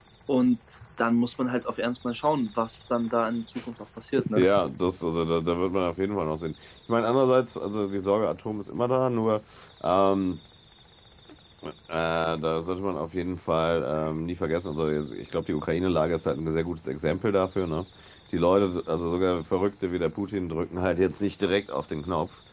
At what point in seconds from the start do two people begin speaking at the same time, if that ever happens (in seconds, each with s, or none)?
none